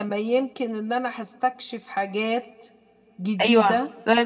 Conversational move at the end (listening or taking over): taking over